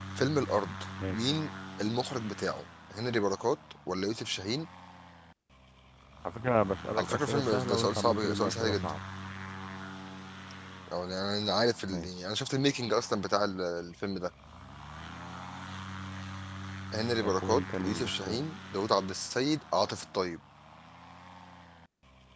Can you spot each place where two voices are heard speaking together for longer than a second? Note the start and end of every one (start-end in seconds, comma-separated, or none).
7.0-8.9, 17.2-18.4